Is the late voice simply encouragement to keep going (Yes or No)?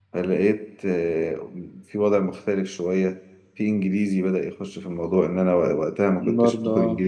Yes